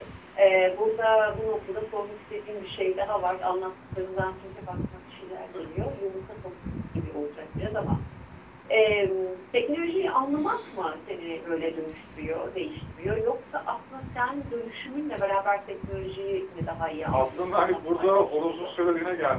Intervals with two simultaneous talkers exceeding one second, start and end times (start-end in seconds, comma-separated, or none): 17.1-18.7